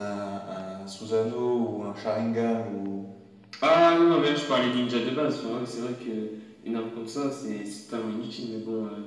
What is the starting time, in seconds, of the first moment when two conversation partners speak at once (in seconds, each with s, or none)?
none